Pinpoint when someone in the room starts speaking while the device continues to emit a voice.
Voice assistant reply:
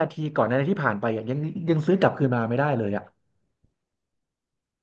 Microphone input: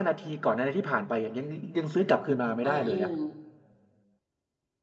3 s

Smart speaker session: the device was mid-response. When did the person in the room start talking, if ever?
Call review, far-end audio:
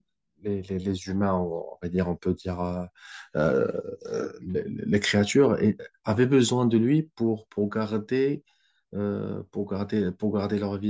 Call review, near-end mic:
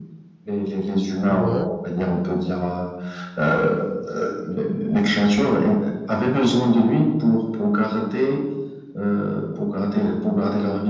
1 s

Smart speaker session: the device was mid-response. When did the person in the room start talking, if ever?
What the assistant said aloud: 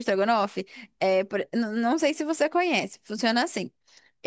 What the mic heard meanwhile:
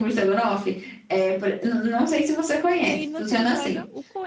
3 s

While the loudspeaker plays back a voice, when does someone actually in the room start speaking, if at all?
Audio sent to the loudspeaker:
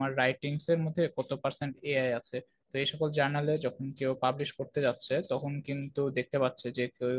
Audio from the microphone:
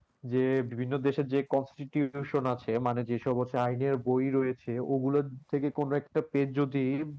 0 s

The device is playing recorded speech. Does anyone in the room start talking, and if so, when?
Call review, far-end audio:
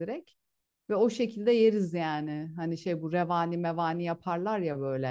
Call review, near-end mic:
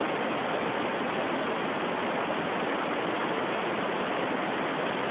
none

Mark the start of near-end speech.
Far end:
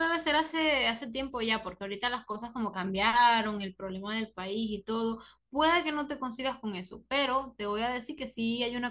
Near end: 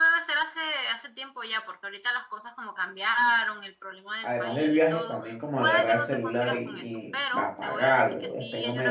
4 s

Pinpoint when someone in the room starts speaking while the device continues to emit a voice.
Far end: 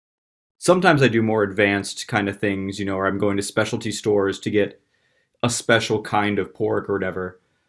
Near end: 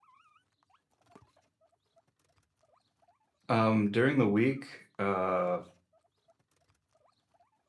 3 s

